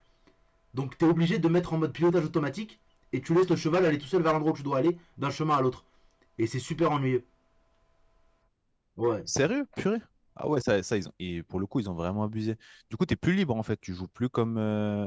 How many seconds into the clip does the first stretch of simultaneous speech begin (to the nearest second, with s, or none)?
none